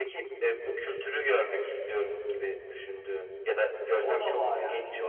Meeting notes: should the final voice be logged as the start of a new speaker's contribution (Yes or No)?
Yes